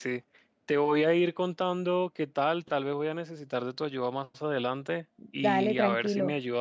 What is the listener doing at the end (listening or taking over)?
listening